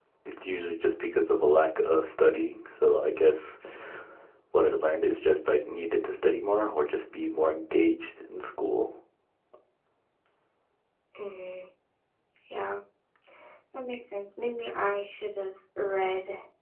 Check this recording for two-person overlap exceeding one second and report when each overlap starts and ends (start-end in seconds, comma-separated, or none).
none